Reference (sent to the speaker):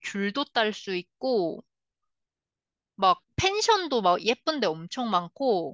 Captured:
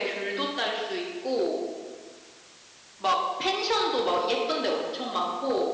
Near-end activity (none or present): none